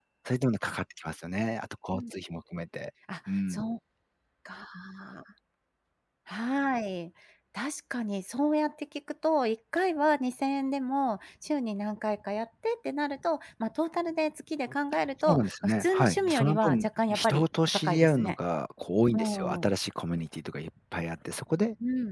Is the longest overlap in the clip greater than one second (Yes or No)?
Yes